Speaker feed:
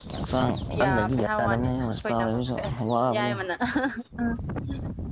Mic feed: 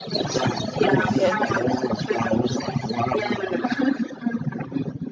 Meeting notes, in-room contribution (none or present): present